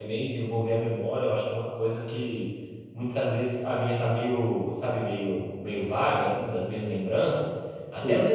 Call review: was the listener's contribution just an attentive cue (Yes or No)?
Yes